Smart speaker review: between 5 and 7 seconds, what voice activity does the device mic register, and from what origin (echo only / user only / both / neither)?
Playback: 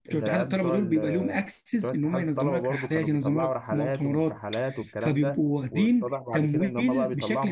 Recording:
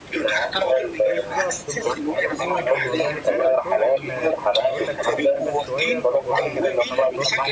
both